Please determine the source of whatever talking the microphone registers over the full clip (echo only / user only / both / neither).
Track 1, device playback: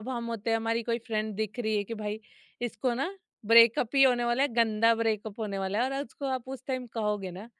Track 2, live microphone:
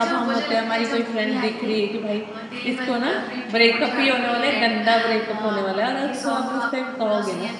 both